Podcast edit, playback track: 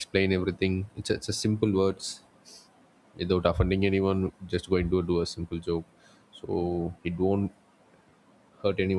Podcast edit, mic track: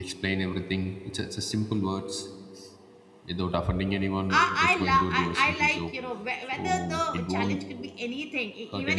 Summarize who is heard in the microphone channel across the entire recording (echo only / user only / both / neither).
both